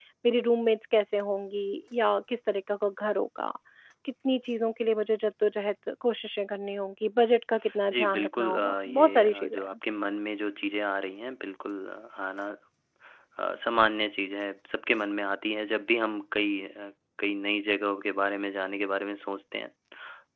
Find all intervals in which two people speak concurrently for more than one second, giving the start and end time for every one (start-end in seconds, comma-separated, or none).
7.9-9.7